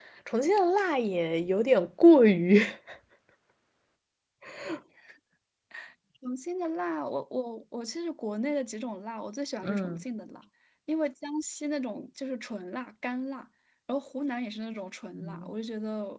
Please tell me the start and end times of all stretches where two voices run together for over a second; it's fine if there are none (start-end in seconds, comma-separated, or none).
none